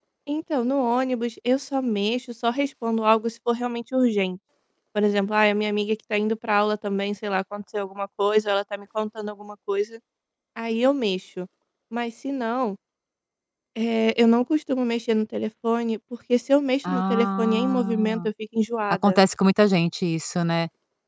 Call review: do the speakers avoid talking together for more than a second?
No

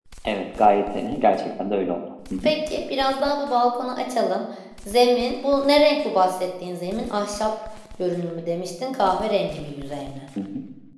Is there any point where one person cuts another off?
No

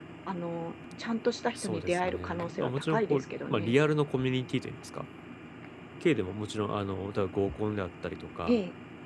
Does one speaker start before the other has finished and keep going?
Yes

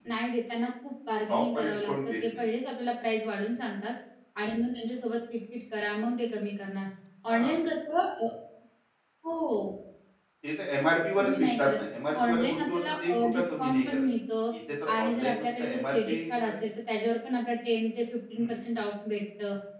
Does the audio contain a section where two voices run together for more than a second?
Yes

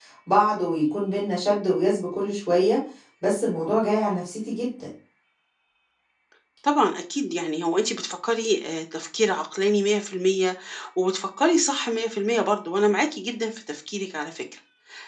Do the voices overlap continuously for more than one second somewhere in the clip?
No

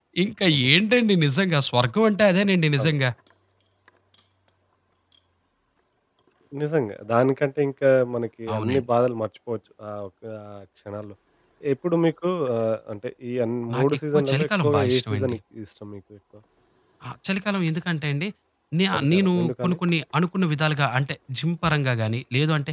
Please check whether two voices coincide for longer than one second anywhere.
Yes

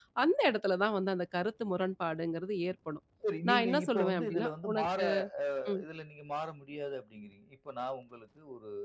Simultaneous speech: Yes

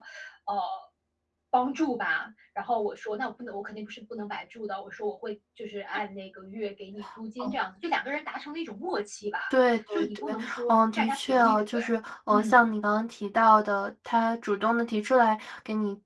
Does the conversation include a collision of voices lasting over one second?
Yes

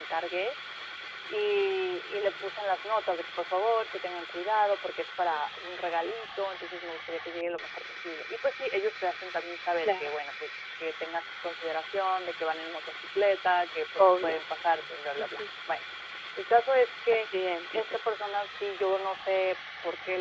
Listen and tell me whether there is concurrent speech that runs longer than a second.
No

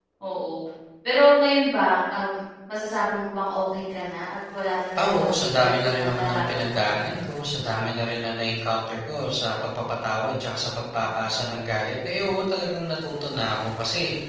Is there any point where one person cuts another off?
Yes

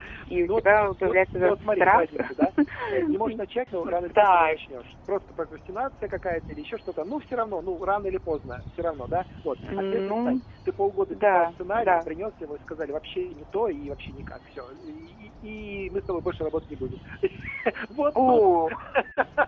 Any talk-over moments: Yes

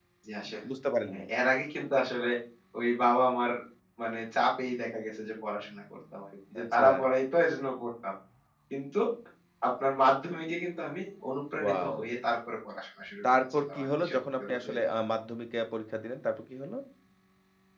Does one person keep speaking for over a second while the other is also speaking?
Yes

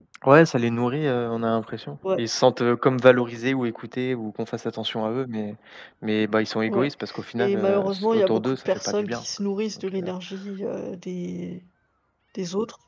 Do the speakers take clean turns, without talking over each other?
No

